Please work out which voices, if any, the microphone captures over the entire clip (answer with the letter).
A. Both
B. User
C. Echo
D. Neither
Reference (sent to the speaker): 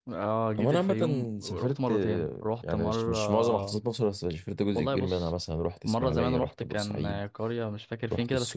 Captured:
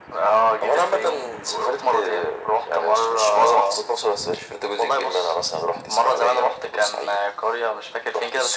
C